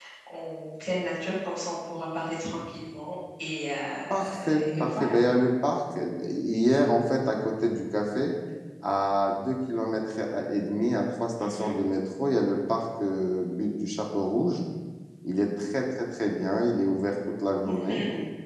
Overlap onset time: 4.1 s

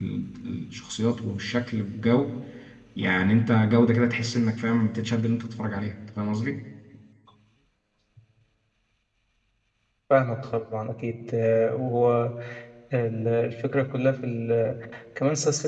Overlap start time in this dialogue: none

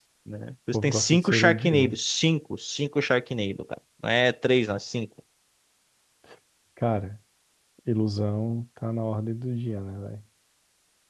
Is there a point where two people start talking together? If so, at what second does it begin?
0.7 s

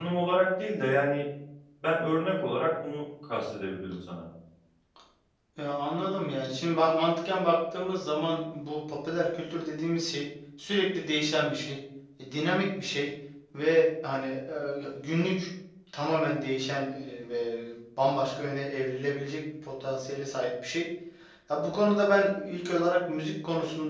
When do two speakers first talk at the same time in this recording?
none

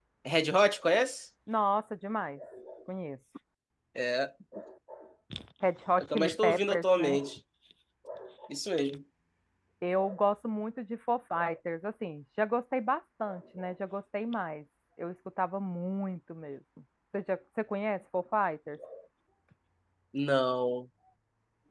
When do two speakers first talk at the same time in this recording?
6.0 s

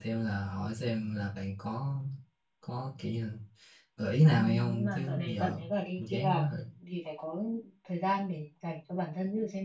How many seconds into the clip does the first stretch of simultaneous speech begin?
4.3 s

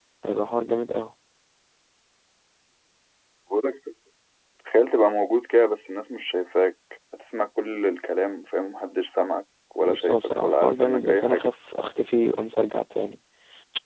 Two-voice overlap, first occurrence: 9.8 s

